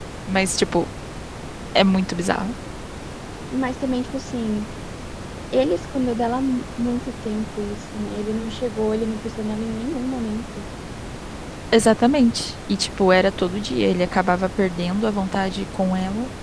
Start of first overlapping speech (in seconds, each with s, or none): none